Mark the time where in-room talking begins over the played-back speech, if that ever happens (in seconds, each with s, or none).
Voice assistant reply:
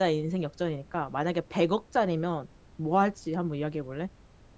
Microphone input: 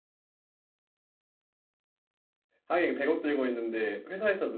2.6 s